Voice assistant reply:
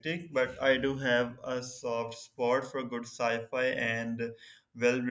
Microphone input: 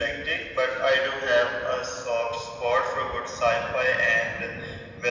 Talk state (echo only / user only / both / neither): echo only